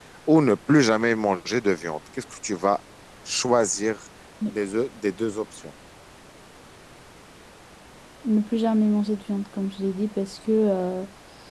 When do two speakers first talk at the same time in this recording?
none

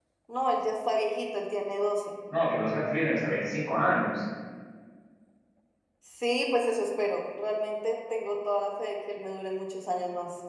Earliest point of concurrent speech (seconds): none

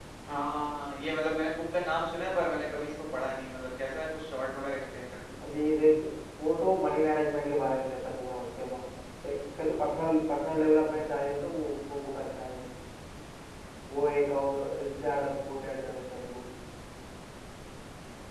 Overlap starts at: none

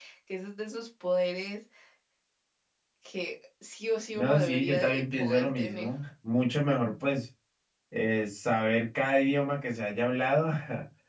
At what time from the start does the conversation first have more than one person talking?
4.1 s

